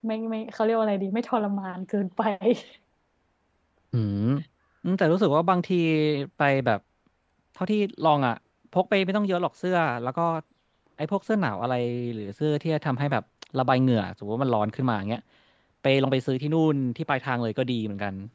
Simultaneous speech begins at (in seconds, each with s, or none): none